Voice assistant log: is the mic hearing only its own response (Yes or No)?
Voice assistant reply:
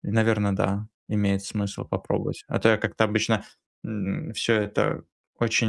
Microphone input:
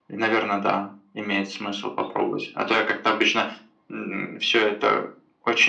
Yes